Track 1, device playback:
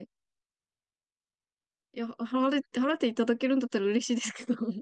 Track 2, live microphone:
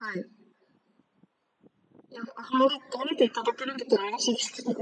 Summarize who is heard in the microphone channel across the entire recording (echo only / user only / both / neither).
echo only